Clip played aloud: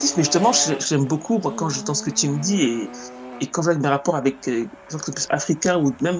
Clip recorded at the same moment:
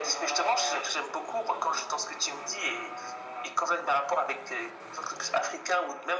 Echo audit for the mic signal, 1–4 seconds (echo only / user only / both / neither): echo only